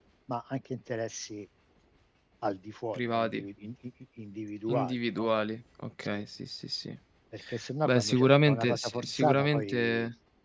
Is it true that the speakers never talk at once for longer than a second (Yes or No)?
No